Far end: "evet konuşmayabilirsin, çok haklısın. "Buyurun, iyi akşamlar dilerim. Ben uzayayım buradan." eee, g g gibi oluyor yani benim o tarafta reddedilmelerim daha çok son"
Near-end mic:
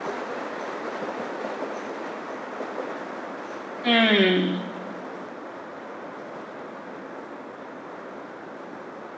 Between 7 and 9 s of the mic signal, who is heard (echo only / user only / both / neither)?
neither